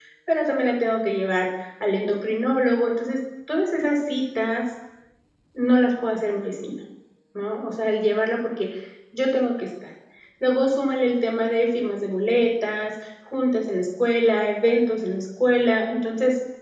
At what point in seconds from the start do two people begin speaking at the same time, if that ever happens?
none

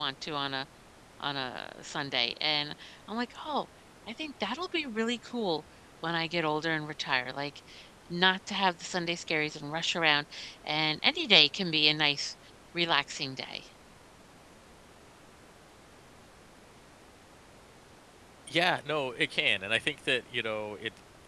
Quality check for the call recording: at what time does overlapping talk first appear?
none

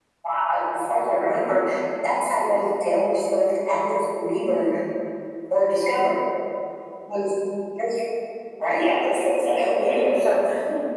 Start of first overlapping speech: 8.7 s

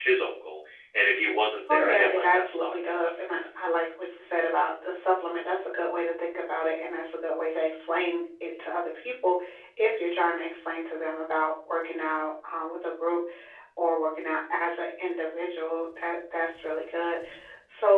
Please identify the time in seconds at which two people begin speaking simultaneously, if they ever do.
1.7 s

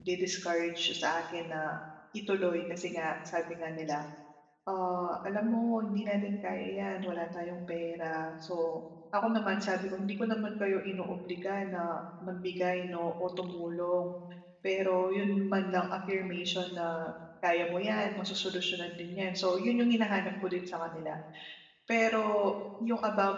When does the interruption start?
none

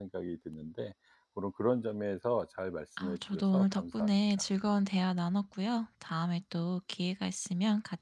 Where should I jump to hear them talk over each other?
3.0 s

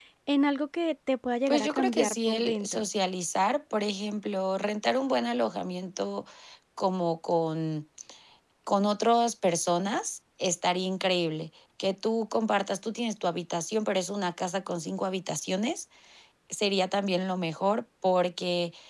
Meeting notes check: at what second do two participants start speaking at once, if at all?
1.5 s

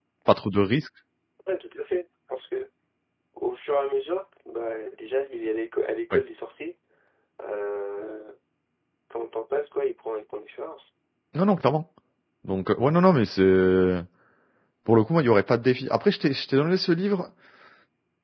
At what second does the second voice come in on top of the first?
none

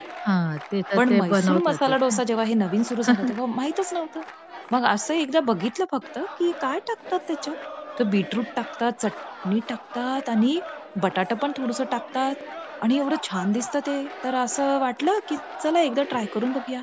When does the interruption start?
1.0 s

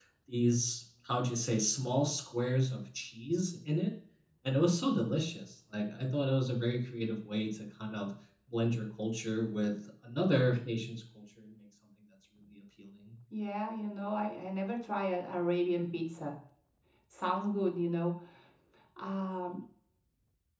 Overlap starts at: none

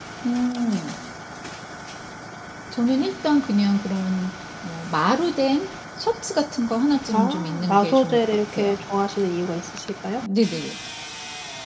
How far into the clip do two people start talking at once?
7.1 s

